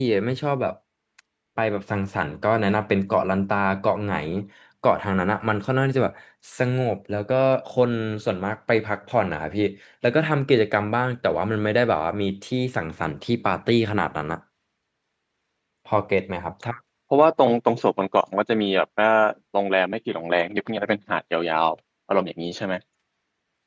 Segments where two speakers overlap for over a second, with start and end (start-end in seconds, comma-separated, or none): none